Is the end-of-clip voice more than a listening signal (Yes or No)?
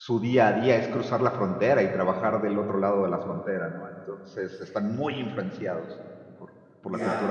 Yes